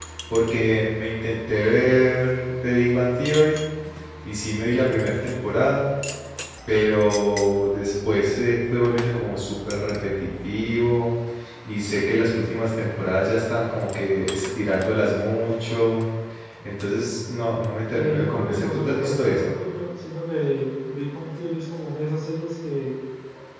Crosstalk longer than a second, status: present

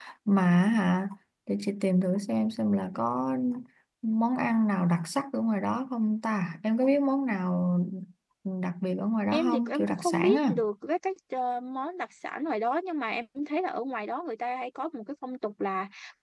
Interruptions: present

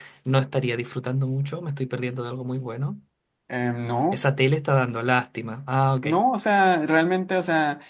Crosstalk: none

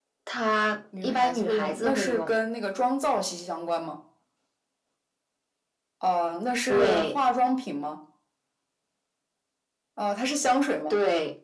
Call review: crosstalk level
present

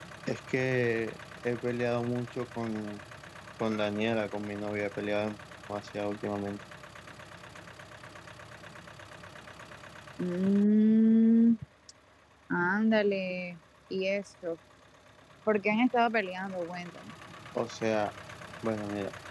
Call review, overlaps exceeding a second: none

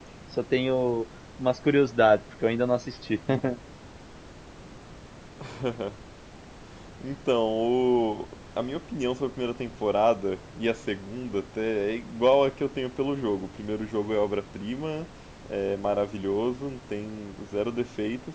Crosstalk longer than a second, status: none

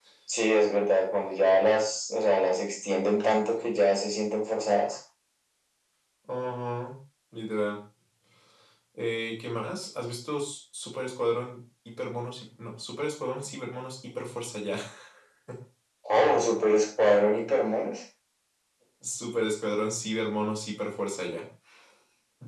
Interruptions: none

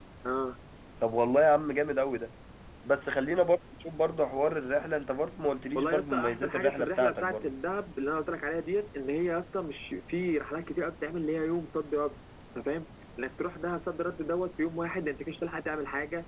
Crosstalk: present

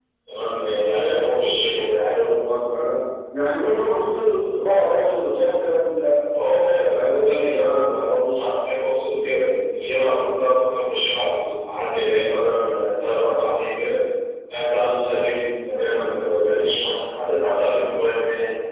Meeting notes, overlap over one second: none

